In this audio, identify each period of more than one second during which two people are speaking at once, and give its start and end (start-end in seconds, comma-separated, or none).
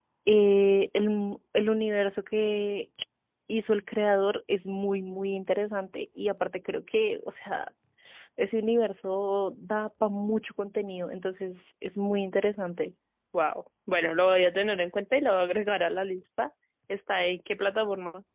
none